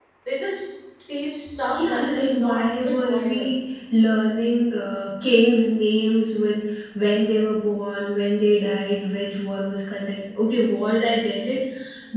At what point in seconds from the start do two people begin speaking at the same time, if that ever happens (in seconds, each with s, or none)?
1.7 s